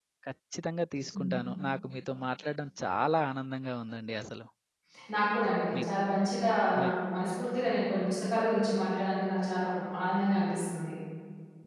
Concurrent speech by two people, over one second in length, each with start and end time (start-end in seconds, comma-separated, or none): none